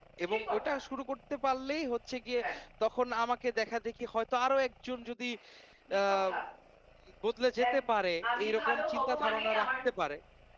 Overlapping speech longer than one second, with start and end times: 8.4-9.7

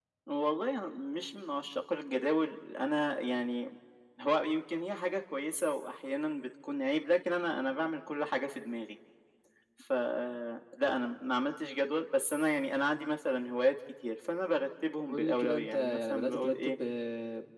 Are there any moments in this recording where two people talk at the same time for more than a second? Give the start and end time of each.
15.1-16.8

